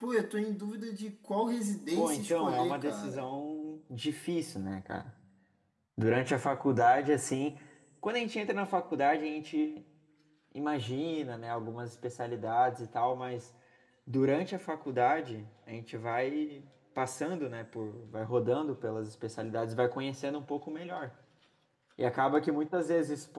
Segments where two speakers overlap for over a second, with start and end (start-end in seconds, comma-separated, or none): 1.9-3.2